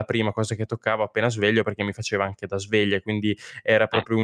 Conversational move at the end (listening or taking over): listening